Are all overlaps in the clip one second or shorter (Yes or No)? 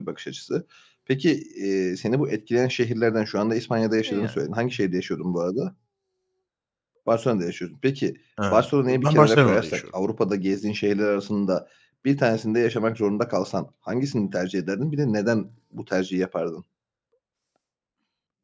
No